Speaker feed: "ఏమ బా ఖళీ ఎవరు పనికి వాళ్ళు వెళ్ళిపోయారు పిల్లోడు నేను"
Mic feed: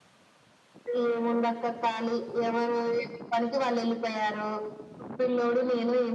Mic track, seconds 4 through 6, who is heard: echo only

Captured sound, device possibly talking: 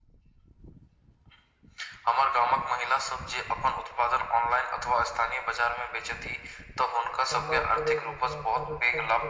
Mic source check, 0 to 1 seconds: neither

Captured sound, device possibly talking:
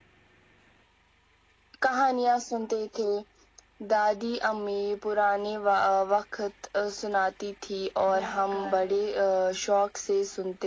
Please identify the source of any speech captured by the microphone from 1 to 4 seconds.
echo only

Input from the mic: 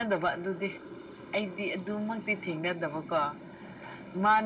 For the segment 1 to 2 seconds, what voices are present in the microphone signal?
echo only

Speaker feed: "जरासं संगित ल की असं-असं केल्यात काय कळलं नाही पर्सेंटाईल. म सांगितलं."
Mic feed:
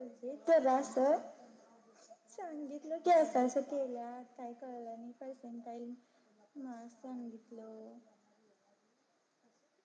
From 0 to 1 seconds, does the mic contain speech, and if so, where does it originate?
echo only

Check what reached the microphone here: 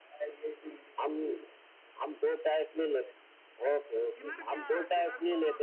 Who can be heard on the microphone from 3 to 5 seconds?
both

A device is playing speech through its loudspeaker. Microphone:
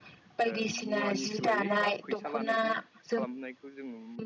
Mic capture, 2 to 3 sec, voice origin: both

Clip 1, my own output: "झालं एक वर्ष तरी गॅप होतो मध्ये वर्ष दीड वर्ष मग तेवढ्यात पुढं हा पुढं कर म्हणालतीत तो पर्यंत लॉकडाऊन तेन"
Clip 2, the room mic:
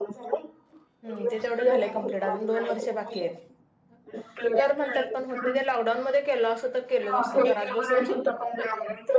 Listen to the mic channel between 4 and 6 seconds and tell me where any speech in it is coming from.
both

